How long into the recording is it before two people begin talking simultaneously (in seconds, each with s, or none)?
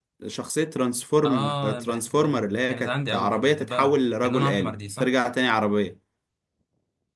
1.2 s